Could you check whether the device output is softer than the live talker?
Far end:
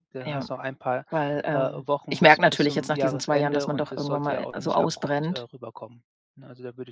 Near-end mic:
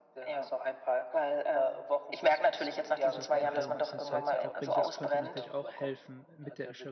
No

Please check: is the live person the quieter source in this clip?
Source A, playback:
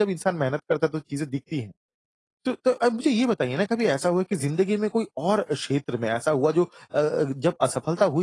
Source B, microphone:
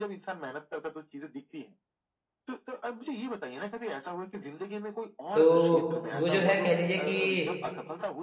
No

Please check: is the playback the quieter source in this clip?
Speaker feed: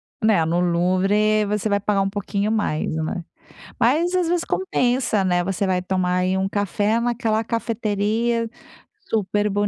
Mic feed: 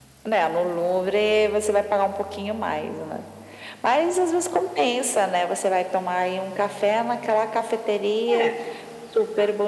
No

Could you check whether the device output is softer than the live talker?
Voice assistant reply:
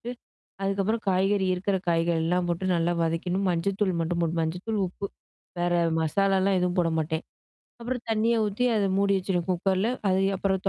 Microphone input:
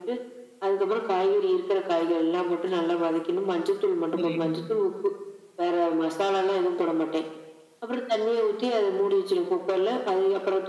No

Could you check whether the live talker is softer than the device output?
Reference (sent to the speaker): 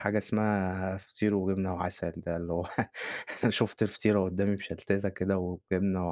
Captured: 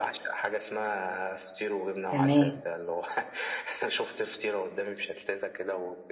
No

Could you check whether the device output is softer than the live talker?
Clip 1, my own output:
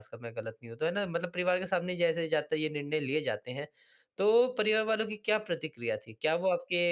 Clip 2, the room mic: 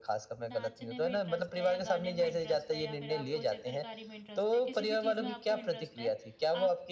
No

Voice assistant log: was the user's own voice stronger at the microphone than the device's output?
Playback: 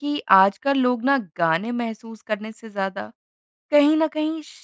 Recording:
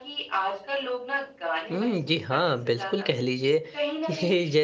Yes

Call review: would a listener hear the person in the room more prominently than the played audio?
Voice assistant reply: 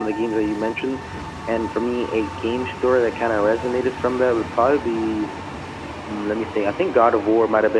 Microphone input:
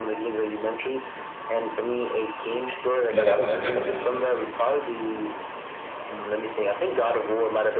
Yes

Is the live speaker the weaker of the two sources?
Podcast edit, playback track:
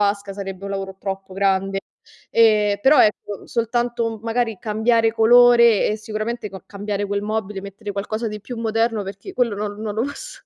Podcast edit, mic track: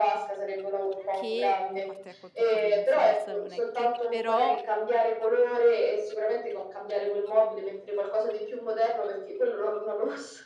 Yes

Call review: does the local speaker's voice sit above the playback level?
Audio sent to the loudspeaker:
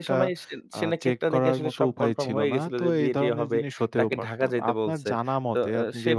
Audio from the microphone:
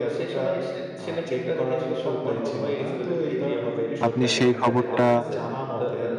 Yes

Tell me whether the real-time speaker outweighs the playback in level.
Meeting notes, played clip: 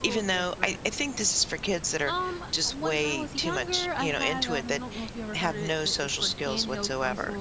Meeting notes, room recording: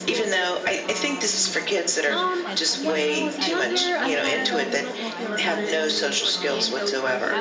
No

